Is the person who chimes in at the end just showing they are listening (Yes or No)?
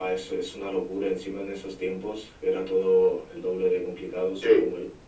No